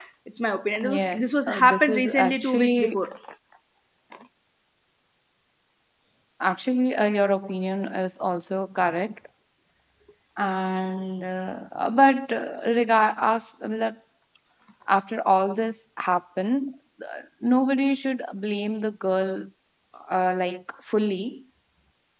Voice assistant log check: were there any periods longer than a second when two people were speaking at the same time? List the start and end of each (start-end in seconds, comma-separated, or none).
0.9-3.0